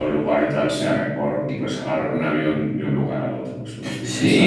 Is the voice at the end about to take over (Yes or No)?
Yes